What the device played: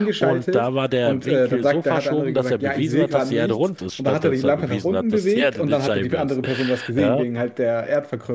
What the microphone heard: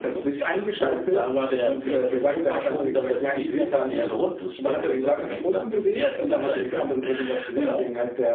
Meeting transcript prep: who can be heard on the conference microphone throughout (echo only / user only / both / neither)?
echo only